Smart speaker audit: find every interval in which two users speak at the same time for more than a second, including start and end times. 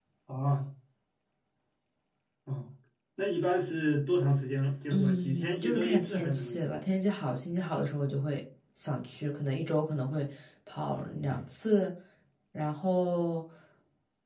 4.9-6.6

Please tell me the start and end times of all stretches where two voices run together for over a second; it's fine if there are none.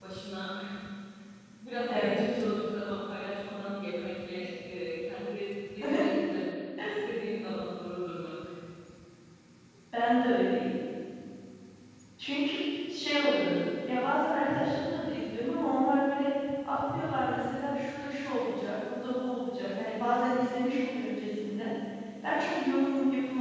none

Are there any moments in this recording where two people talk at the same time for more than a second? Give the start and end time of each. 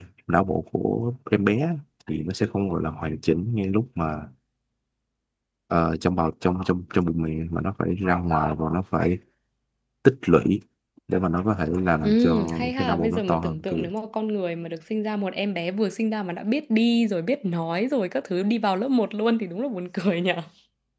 12.0-13.9

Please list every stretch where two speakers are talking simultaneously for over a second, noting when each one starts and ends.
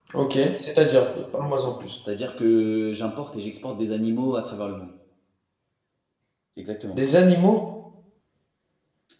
none

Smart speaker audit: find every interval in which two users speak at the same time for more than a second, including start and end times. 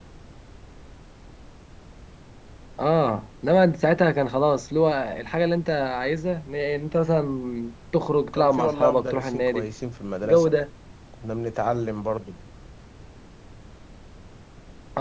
8.3-9.7

